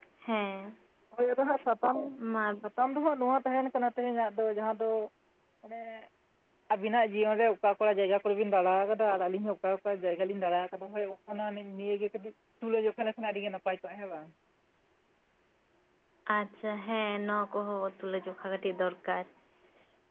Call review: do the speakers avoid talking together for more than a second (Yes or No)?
Yes